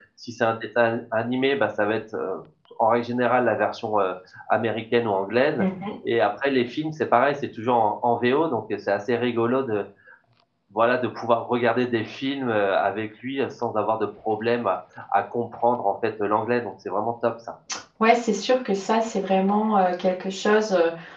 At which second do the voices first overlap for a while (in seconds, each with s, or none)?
none